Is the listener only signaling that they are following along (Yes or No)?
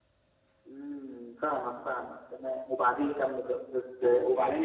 No